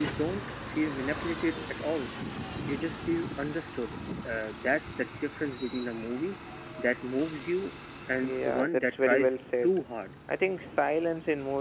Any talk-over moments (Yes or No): Yes